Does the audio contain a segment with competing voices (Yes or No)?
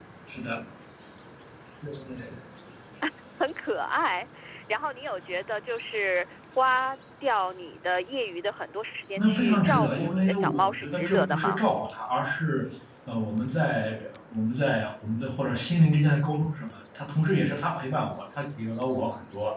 Yes